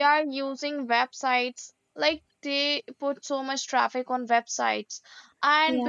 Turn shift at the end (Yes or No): No